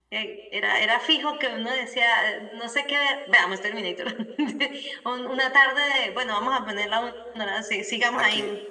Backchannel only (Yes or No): No